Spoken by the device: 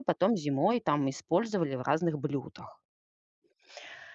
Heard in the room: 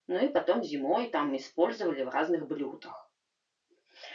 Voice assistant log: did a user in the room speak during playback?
No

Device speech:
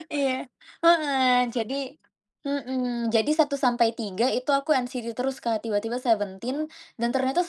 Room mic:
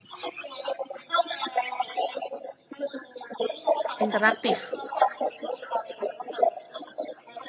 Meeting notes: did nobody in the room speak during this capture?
No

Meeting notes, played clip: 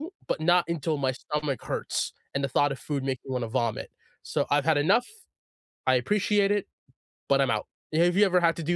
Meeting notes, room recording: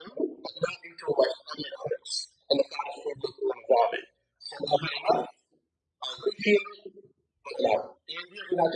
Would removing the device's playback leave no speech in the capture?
Yes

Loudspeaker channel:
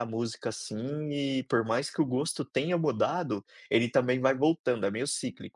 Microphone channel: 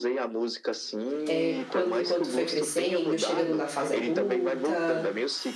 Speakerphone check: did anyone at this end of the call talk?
Yes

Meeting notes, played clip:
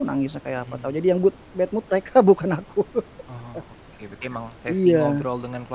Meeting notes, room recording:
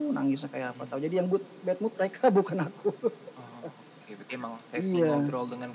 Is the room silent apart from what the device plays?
Yes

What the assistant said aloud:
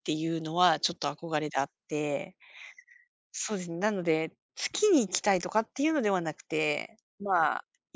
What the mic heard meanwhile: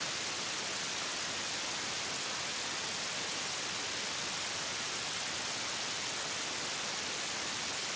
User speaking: No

